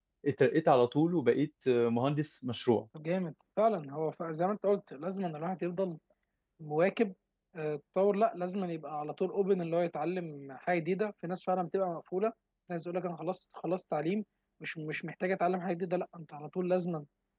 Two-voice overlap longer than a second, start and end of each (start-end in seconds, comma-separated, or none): none